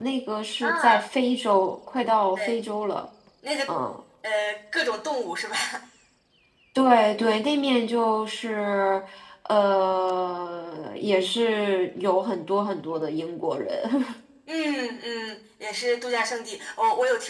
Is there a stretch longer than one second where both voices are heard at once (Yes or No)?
No